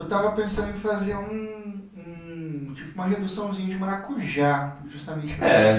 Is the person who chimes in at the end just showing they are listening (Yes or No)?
Yes